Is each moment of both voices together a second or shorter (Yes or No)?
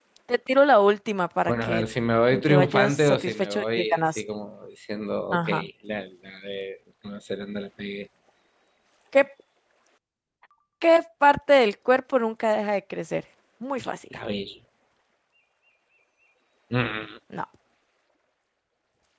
No